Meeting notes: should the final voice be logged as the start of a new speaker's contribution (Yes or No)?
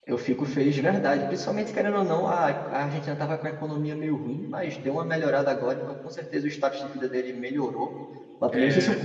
No